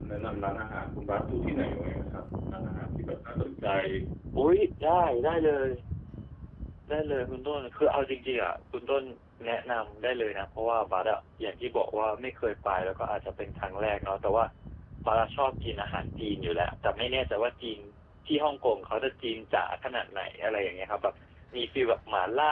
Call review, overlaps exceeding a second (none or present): none